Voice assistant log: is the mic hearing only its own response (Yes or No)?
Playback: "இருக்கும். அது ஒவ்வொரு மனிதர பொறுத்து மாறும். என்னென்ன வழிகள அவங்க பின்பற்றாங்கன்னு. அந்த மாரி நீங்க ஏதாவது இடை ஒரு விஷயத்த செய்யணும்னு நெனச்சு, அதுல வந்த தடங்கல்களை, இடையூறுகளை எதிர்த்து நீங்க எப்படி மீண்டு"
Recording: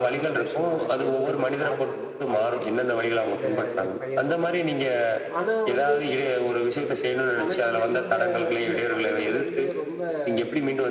No